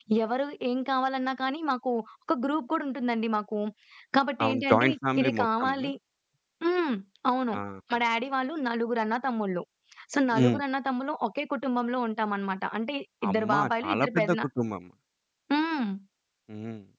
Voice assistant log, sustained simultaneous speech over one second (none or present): present